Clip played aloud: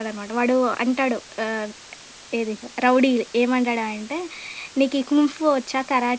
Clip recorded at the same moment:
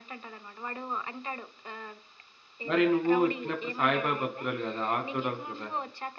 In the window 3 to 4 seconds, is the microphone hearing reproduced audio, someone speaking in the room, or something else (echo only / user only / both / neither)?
both